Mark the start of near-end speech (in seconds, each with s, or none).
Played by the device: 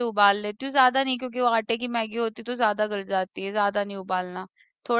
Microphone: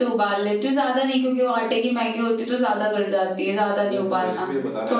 3.8 s